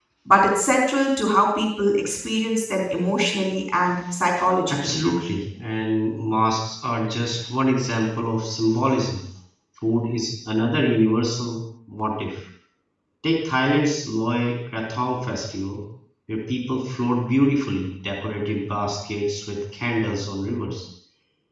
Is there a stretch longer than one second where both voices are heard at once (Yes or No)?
No